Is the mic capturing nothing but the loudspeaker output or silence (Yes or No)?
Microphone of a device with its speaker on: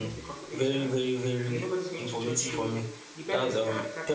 No